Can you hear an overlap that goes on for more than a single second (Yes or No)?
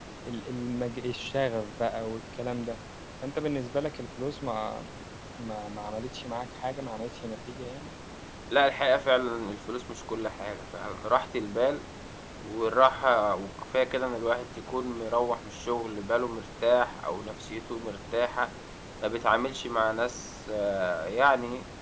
No